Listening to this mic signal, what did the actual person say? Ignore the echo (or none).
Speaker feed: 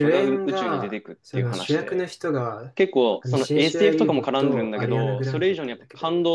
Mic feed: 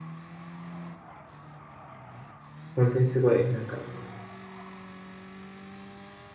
本当にすごいなんか